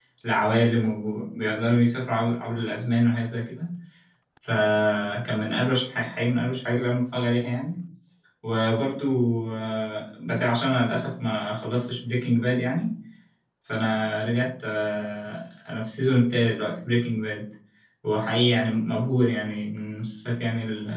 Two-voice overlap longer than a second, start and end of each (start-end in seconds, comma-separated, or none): none